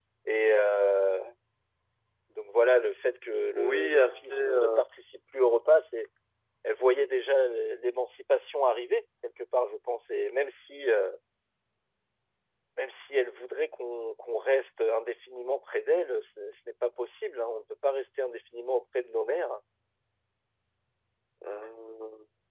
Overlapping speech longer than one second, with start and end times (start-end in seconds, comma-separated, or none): 3.5-4.8